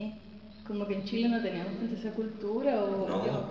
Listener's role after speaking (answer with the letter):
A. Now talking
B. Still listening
B